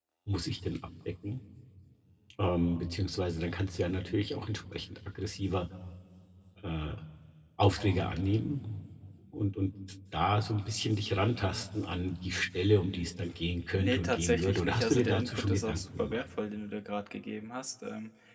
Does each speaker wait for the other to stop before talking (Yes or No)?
No